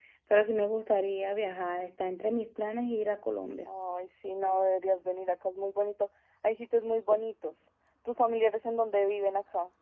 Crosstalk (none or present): none